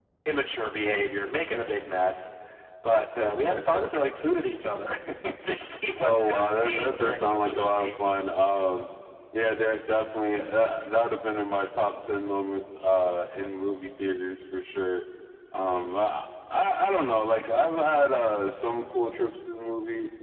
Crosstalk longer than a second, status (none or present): present